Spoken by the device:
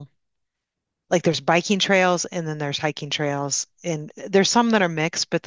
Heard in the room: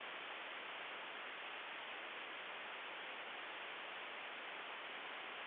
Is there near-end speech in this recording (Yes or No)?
No